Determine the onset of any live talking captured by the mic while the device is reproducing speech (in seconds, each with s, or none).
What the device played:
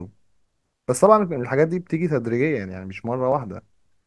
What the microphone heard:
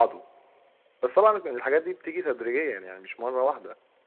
none